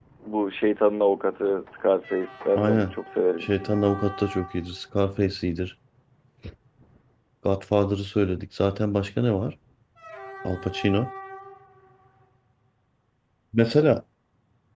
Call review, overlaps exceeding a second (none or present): none